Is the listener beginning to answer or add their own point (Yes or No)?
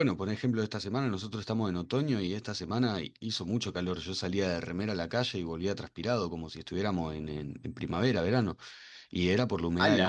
No